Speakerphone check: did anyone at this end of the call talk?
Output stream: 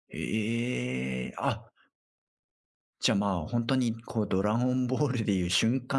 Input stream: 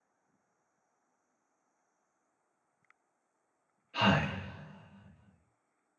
Yes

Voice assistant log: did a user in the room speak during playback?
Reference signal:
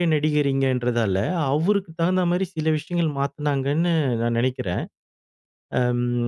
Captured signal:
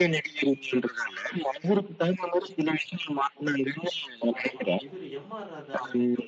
Yes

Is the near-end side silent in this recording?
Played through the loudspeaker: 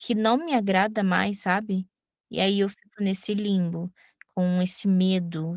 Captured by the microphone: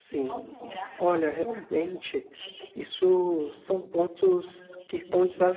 No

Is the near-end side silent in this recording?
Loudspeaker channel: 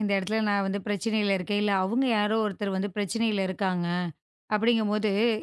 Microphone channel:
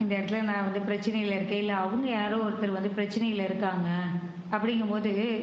Yes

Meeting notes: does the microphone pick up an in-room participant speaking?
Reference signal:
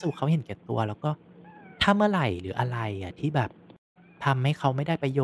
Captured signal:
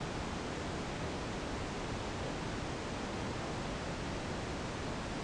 No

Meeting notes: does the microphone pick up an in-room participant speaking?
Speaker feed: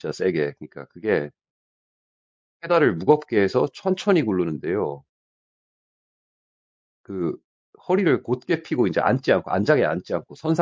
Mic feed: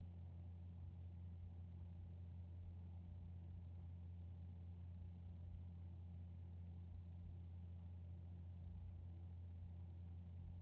No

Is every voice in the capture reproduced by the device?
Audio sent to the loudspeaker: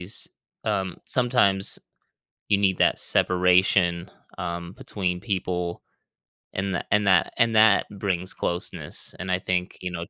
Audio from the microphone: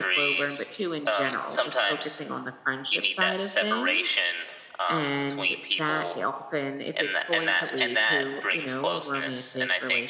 No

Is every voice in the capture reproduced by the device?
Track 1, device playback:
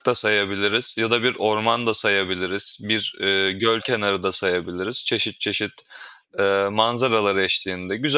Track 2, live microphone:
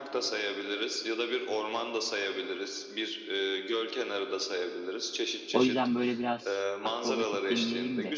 No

